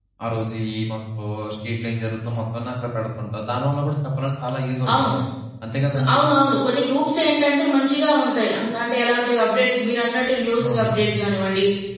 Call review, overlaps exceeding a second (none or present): none